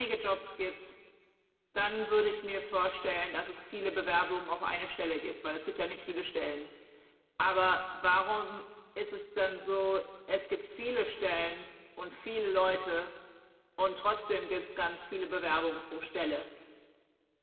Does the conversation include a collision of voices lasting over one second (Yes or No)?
No